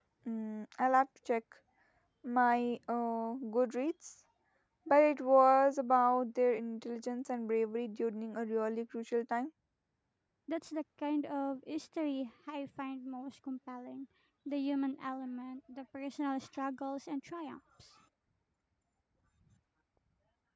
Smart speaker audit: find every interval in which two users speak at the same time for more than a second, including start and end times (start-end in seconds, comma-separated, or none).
none